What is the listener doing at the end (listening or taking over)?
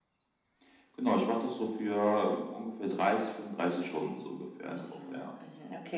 taking over